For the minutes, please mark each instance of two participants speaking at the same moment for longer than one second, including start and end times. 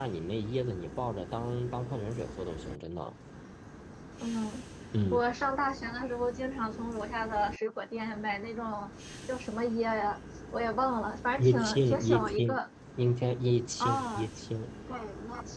11.4-12.6

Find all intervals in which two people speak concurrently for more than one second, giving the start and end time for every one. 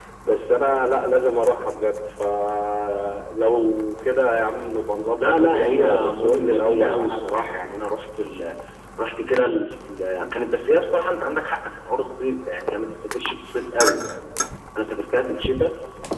5.2-7.6

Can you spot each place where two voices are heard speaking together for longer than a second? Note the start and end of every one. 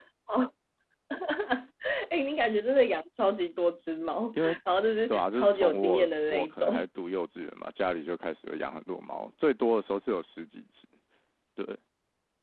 5.1-6.7

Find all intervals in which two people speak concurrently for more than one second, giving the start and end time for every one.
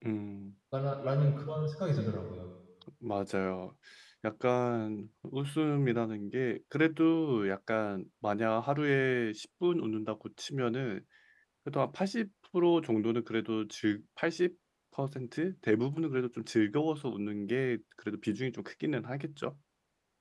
none

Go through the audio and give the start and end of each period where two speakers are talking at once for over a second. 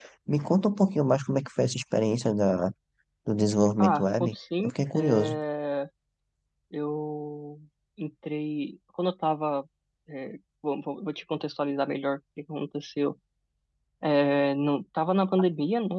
3.8-5.4

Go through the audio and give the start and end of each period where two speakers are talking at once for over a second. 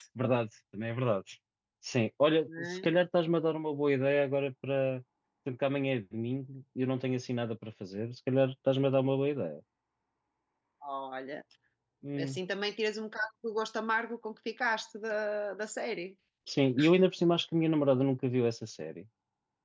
none

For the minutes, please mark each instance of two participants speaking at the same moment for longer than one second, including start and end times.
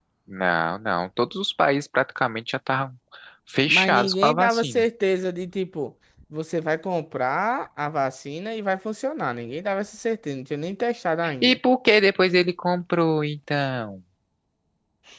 3.6-4.8

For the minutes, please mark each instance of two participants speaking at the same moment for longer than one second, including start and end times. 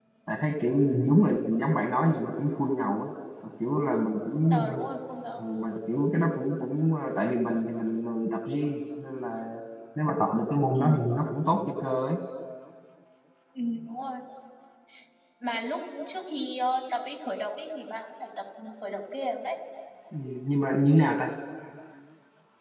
none

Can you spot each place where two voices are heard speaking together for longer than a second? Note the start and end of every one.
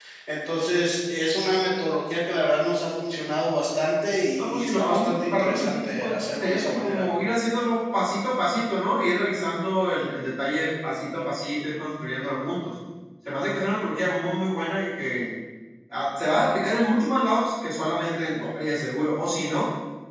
4.4-7.0

